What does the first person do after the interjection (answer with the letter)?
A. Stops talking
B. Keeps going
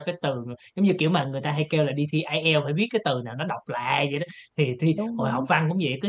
B